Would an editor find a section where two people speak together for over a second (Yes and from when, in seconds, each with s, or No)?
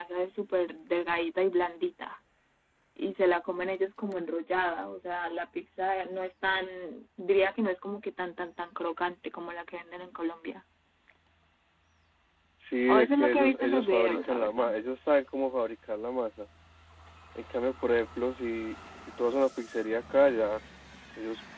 Yes, from 12.9 s